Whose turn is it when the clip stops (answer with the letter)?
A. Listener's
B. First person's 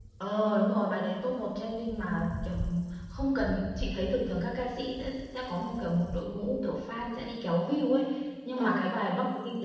B